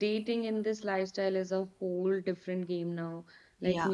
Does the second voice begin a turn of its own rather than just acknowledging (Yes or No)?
No